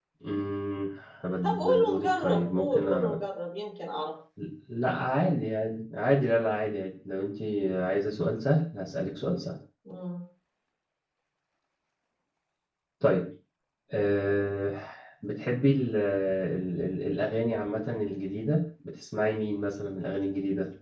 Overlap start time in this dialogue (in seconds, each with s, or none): 1.4 s